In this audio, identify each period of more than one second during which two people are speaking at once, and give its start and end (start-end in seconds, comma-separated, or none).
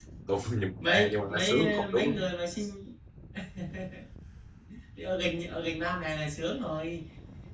0.8-2.3